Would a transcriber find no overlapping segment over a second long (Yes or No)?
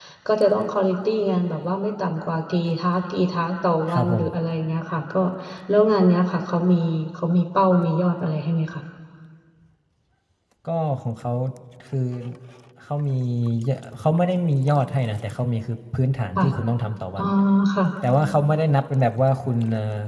Yes